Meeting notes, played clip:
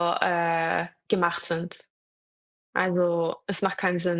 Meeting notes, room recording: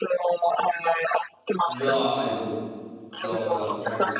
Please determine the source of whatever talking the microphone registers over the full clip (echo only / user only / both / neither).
both